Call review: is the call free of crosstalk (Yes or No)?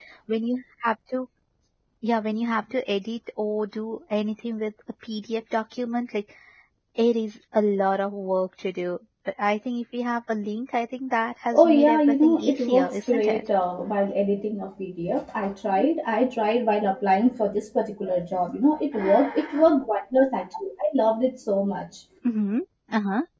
No